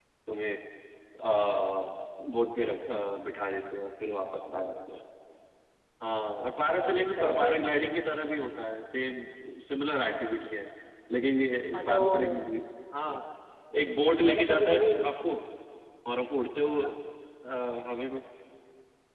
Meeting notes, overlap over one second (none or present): present